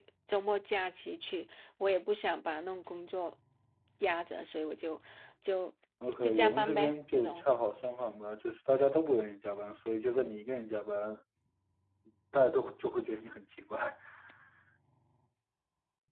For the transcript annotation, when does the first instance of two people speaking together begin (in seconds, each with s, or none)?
6.2 s